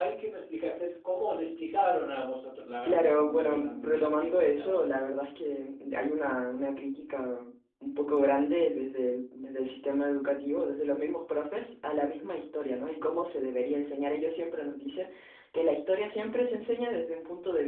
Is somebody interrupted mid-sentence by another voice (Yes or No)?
Yes